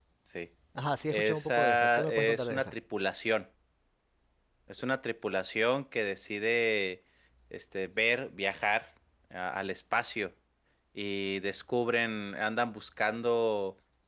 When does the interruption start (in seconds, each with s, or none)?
1.1 s